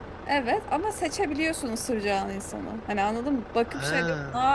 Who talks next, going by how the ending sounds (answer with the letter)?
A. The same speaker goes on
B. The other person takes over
A